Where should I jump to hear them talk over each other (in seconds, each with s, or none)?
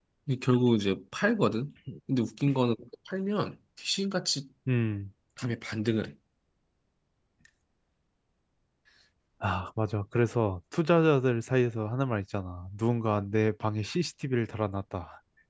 none